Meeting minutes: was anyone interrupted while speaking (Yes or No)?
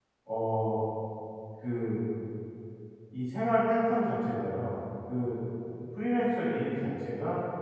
No